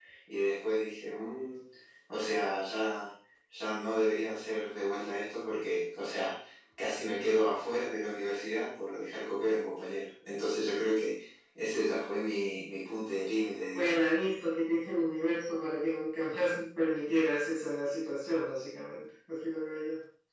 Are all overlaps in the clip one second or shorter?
Yes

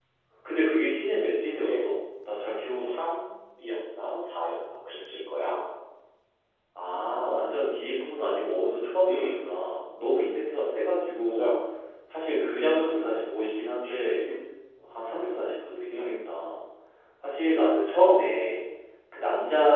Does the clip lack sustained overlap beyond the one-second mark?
Yes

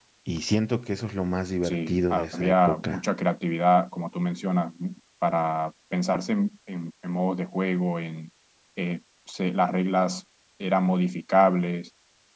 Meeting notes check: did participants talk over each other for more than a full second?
Yes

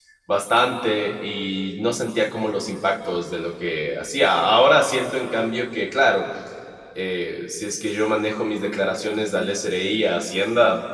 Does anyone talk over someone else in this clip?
No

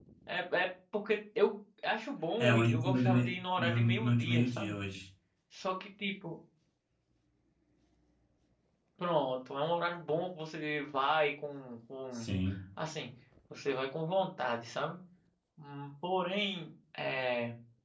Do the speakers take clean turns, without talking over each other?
No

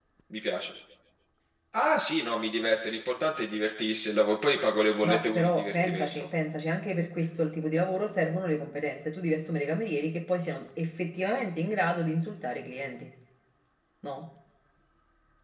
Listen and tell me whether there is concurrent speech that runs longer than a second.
Yes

